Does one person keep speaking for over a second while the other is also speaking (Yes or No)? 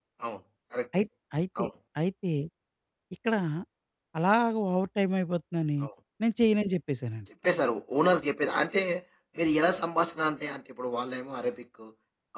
No